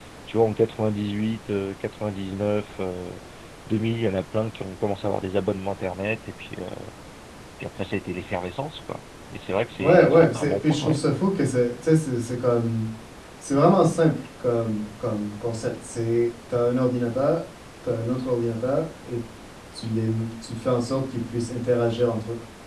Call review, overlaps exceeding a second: present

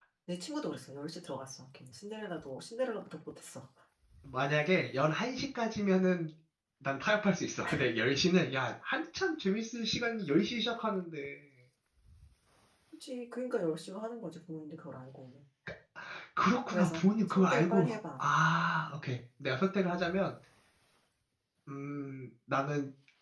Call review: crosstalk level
present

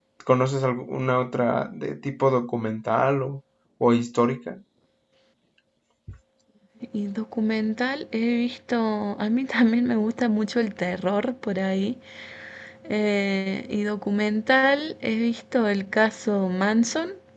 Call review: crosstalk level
none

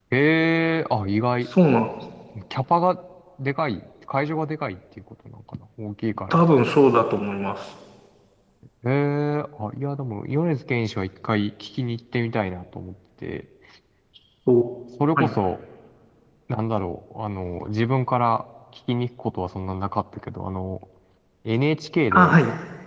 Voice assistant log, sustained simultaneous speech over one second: none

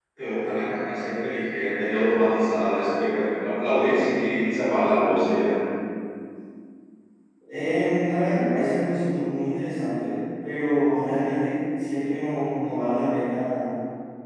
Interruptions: none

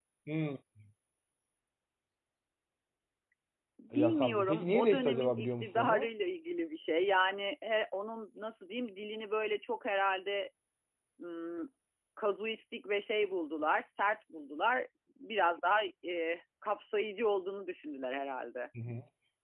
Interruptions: present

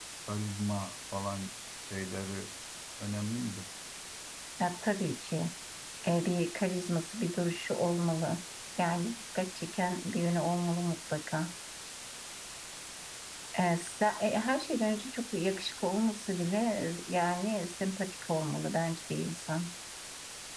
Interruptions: none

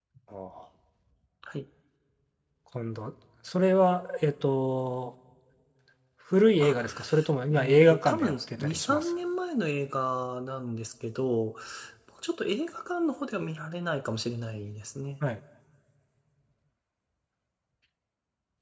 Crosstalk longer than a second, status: present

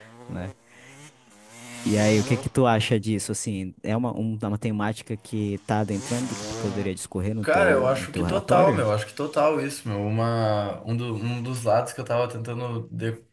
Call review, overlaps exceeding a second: present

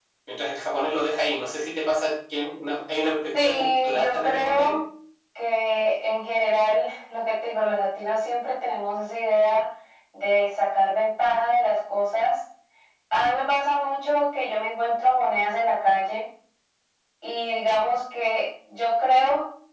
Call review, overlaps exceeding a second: present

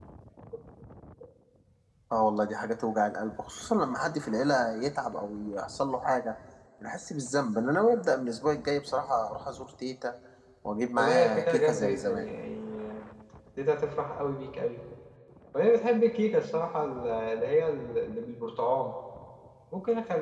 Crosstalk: present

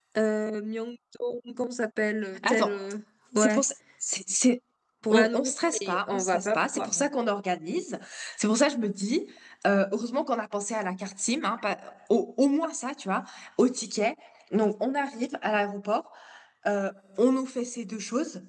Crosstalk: present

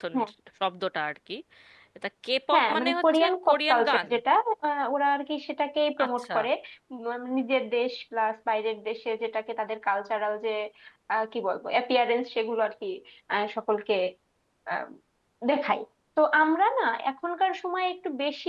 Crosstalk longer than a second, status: present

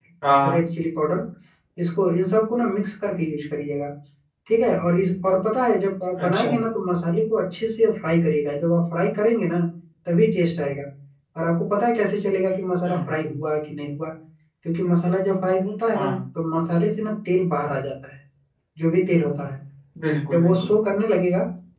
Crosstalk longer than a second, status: none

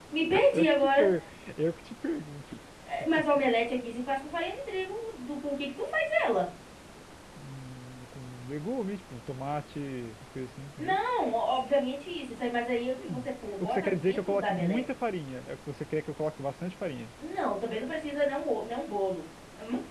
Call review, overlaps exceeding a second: present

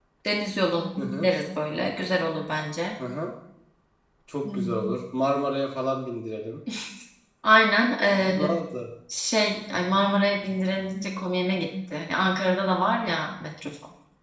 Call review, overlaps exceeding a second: none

